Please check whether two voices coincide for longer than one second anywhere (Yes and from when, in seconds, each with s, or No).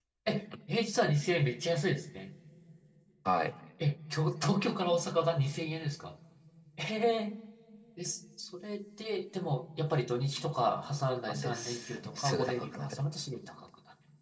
Yes, from 11.3 s